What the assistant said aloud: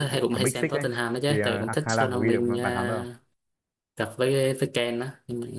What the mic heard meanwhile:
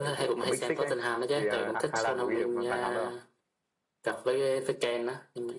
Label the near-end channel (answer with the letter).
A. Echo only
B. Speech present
A